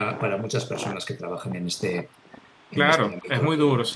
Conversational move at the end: taking over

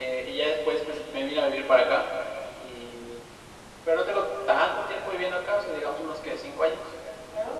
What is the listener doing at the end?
taking over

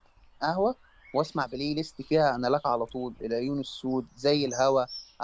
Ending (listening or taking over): listening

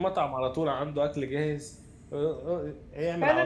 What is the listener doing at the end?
taking over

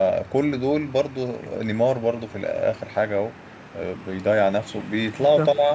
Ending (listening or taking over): listening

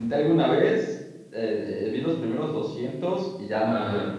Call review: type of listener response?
taking over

